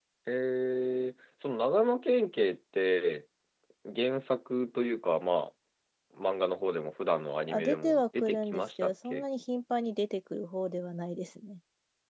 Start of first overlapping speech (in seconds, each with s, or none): 7.5 s